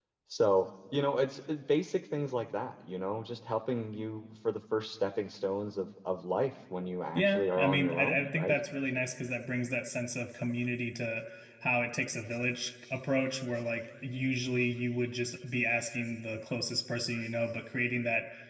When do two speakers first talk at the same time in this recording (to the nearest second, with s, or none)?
7 s